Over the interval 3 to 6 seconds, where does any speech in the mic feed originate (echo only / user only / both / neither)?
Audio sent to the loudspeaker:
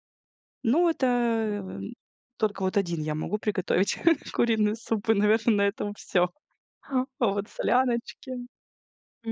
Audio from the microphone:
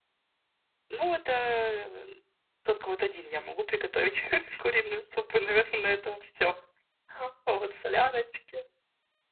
echo only